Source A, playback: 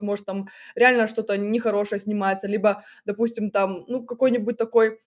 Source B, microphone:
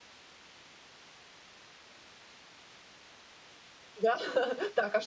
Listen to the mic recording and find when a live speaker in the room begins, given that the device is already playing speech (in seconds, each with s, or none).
4.0 s